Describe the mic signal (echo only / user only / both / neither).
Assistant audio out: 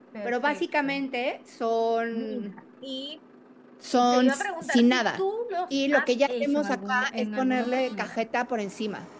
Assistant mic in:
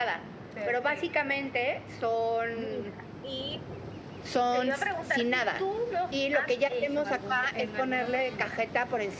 echo only